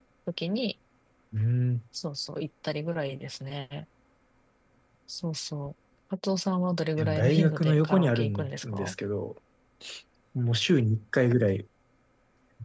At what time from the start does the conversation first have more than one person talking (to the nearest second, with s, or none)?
7 s